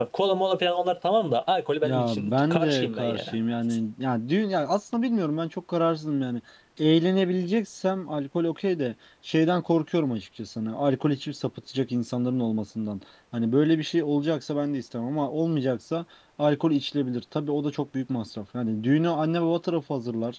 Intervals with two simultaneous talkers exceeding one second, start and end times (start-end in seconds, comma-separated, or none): 1.8-3.4